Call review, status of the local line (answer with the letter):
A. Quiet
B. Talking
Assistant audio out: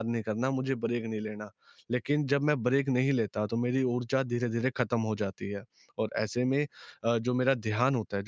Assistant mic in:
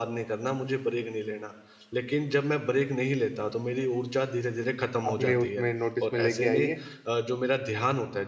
B